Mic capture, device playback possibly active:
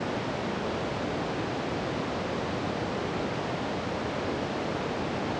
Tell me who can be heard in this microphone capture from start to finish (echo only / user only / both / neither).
neither